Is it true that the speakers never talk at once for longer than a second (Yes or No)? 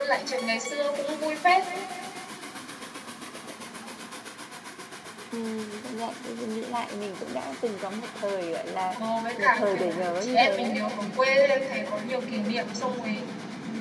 No